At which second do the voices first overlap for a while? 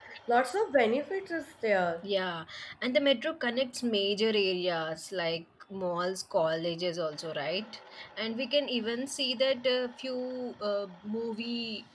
none

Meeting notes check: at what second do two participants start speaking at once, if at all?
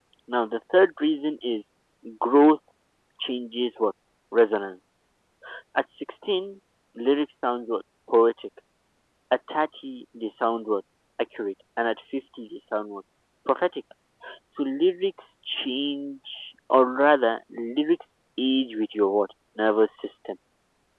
none

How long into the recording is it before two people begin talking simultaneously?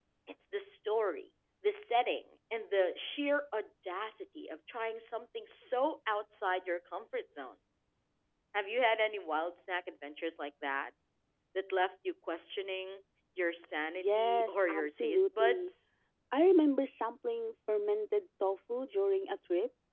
14 s

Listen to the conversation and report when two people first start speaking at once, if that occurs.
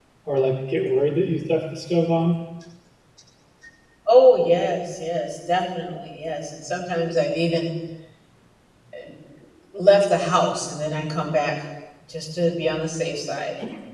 none

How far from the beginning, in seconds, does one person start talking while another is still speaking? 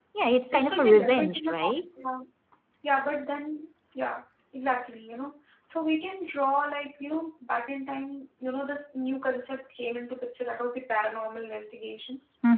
1 s

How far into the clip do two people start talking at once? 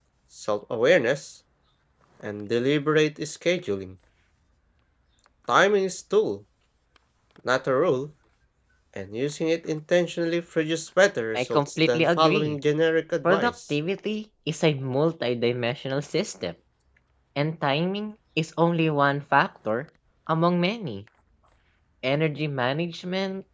11 s

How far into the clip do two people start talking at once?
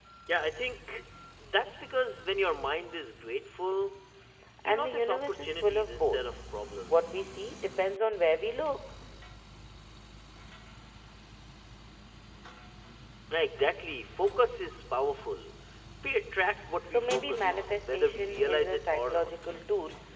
5 s

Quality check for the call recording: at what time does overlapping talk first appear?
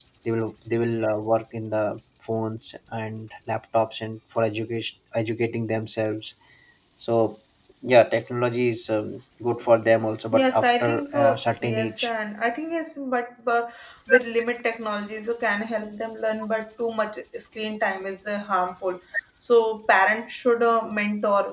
10 s

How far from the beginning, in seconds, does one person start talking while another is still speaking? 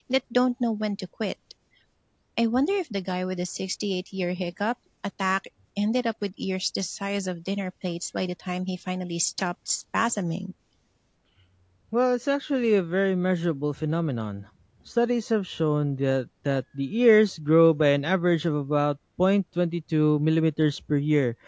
none

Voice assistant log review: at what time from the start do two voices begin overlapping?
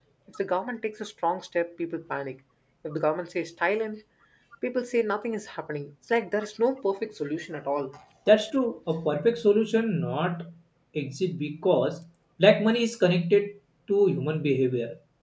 none

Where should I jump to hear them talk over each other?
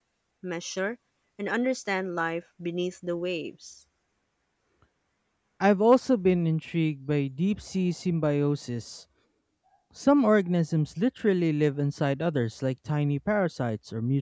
none

